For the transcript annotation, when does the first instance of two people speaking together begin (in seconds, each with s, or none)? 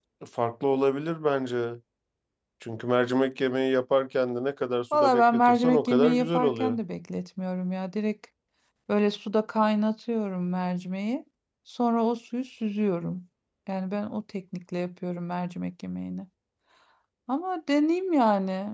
4.9 s